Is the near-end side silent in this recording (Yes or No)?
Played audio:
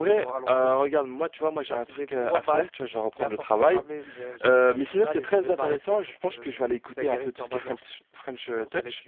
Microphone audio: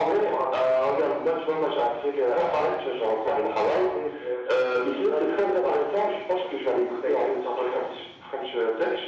Yes